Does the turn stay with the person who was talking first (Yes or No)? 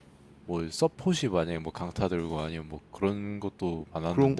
No